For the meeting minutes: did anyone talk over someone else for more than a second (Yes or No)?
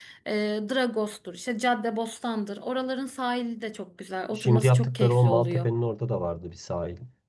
Yes